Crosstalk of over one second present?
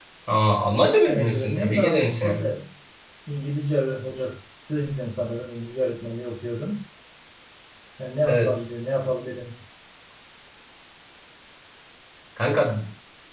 Yes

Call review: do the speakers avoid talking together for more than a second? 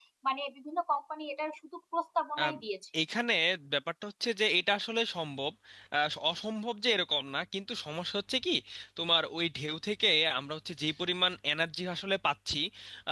Yes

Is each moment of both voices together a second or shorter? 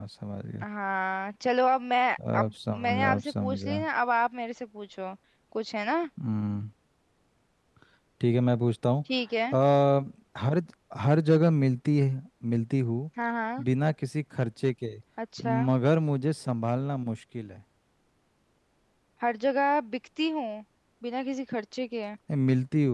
No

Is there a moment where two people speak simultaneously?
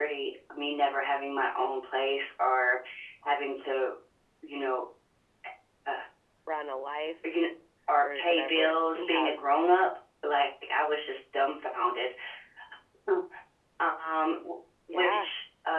Yes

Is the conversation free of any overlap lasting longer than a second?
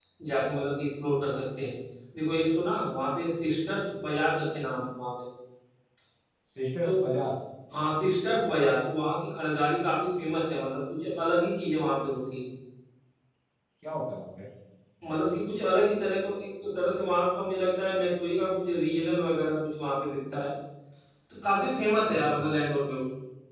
Yes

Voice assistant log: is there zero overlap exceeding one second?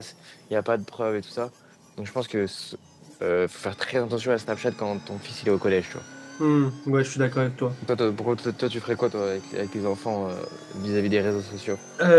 Yes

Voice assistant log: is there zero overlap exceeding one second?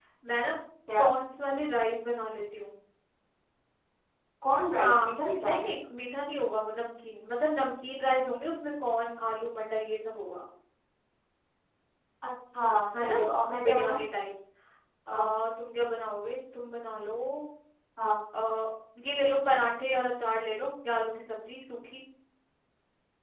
Yes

